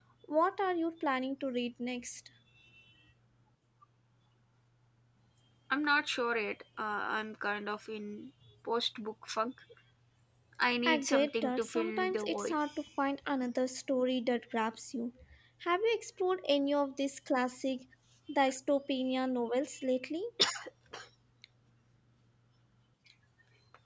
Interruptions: present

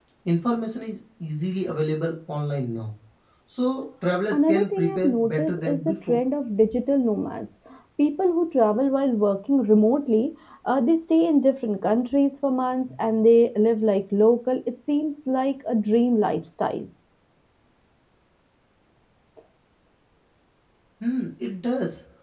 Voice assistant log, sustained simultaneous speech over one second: present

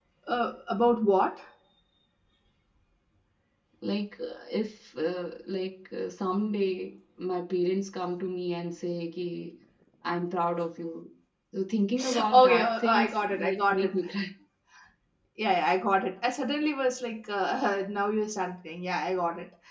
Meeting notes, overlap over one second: present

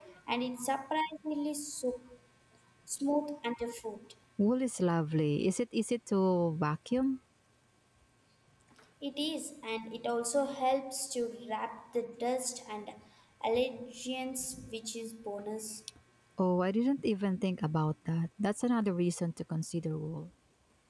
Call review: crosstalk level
none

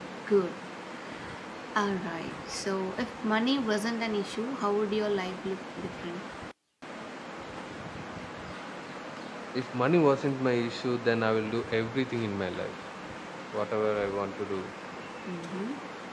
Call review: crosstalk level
none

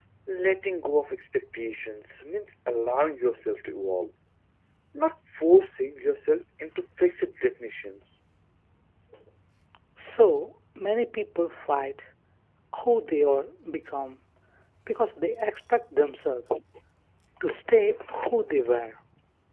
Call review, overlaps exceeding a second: none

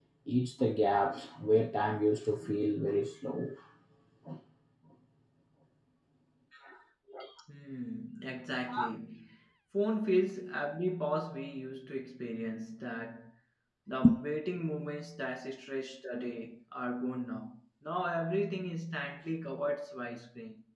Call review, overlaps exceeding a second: none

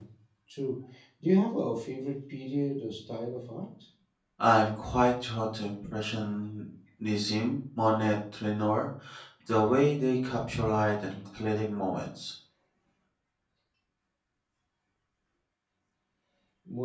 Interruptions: none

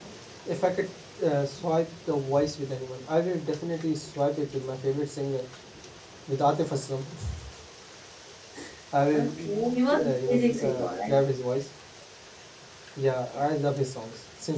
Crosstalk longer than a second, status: present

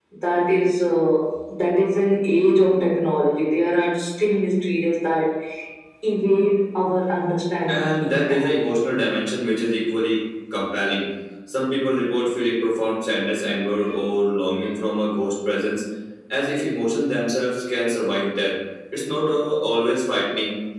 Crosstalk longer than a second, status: present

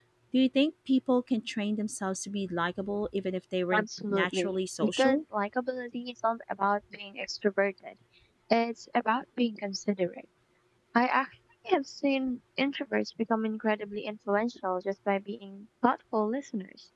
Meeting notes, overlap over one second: present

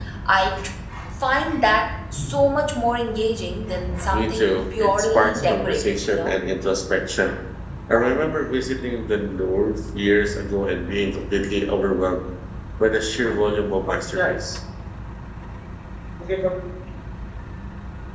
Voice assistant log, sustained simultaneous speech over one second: present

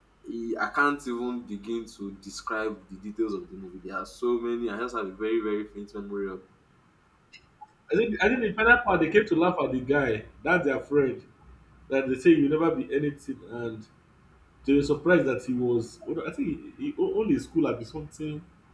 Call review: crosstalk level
none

